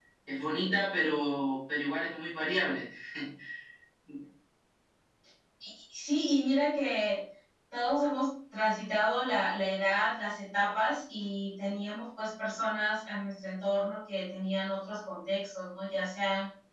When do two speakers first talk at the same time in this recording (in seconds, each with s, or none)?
none